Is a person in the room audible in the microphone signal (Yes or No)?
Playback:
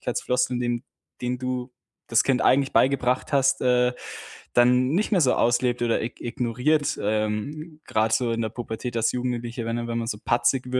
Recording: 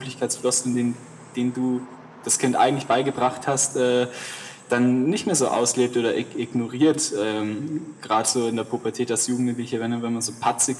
No